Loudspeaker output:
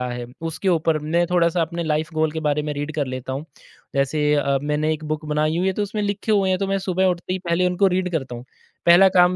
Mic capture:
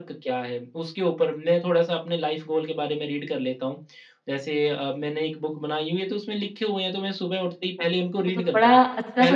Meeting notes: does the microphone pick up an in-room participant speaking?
Yes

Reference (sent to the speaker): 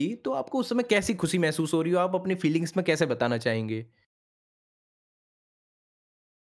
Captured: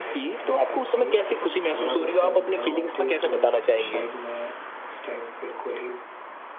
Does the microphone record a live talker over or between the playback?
Yes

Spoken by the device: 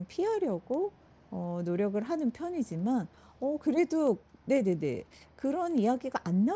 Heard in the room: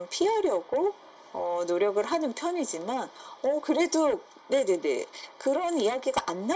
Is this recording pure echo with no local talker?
Yes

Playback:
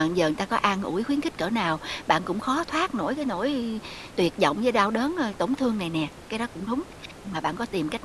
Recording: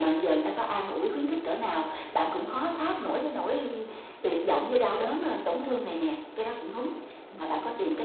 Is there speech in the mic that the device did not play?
No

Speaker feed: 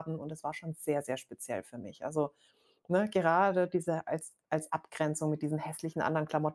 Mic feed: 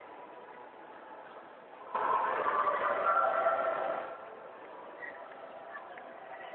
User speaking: No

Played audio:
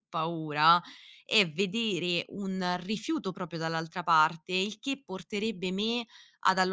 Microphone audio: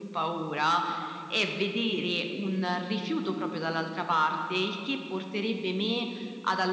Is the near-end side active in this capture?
No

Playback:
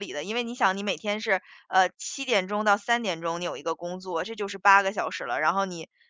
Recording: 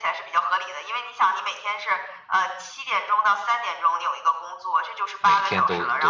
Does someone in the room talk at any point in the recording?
Yes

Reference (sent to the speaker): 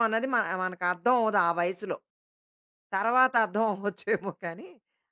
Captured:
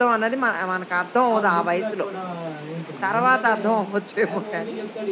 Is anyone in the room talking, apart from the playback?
Yes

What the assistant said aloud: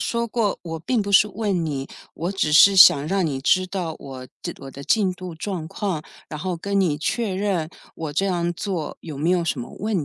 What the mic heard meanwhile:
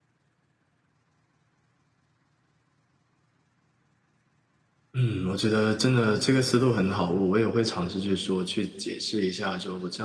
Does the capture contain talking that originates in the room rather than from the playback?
Yes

